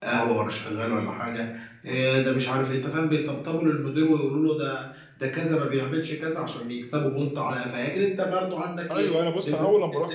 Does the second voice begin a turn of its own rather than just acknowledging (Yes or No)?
Yes